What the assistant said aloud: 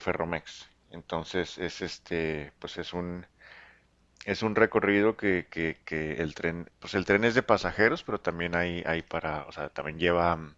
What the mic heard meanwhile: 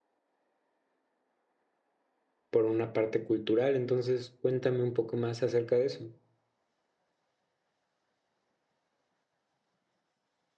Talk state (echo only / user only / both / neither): user only